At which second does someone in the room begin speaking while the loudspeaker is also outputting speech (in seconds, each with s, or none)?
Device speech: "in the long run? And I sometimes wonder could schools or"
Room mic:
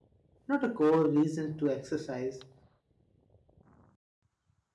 0.5 s